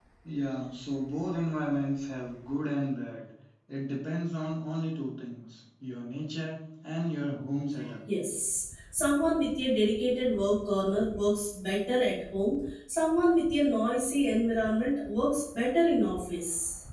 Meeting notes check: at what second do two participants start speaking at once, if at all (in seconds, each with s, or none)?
none